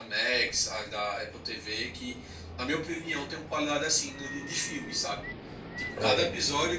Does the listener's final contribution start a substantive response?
No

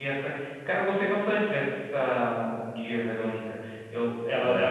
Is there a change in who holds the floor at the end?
No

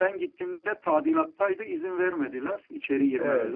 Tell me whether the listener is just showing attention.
No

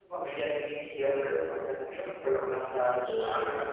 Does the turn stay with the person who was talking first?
No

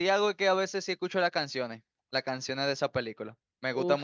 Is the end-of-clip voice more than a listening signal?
Yes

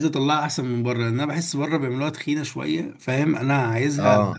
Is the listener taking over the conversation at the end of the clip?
No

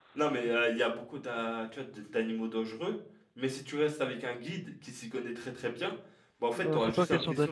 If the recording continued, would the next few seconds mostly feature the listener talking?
Yes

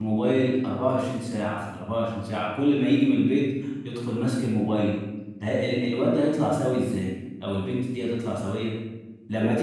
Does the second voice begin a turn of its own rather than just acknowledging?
No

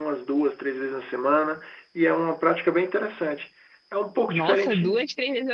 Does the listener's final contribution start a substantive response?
Yes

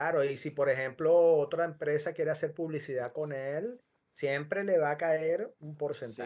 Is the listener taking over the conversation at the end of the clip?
Yes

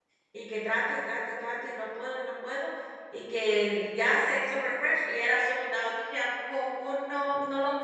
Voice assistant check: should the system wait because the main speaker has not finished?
No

